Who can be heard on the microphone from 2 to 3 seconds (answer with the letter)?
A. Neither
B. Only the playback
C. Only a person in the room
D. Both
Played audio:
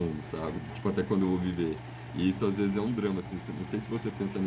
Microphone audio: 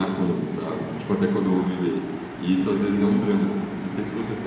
B